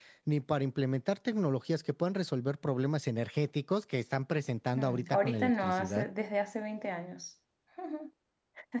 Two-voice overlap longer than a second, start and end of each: 4.8-6.0

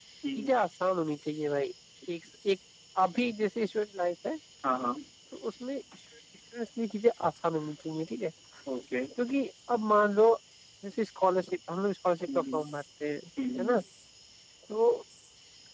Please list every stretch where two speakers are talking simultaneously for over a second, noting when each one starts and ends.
none

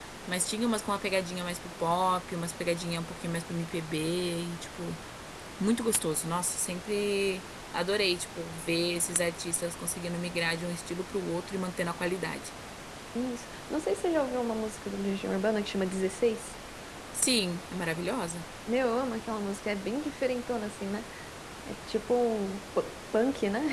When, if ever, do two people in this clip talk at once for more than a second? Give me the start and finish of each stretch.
none

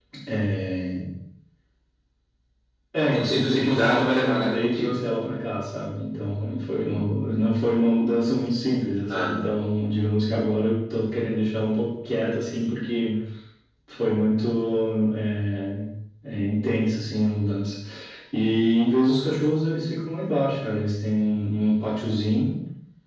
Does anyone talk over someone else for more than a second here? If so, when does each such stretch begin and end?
3.0-4.9

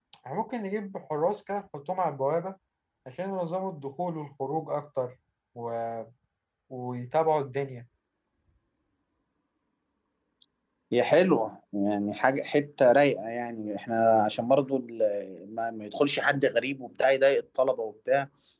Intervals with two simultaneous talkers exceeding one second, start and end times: none

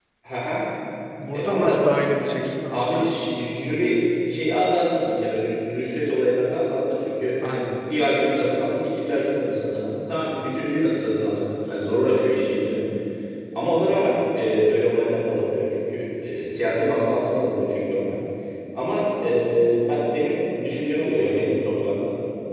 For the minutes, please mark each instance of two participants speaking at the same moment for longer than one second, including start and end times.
none

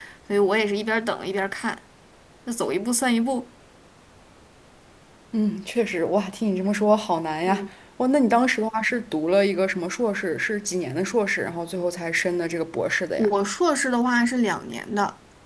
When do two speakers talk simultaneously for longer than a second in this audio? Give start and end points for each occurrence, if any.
none

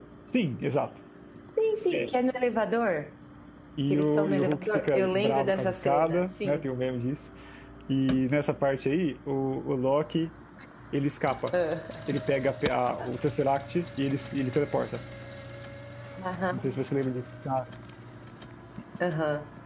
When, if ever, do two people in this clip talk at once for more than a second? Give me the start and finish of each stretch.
3.9-6.6

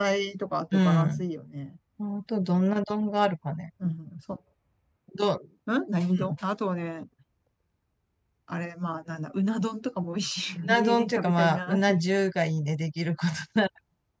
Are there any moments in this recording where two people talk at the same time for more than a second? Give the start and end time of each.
10.7-12.0

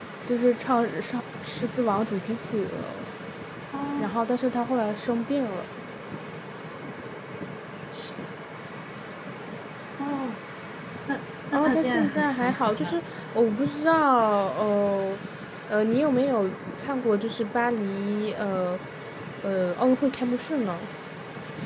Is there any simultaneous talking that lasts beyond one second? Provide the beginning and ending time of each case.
11.5-12.9

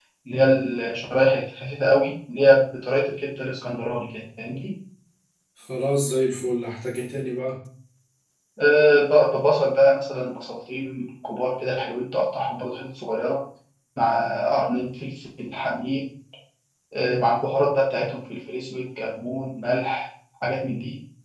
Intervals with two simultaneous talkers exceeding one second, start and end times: none

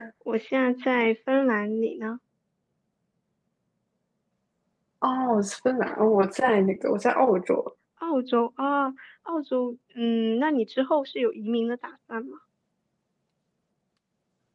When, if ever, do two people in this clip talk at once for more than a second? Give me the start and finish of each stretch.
none

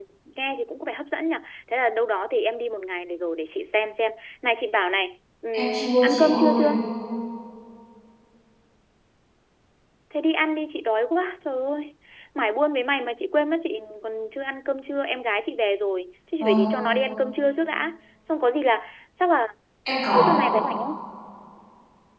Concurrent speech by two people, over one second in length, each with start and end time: 5.5-6.8

